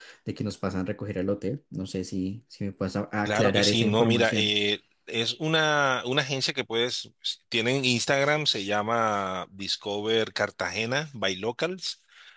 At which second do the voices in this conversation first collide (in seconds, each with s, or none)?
3.2 s